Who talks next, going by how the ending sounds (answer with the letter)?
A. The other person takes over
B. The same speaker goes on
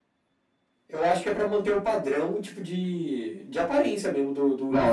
A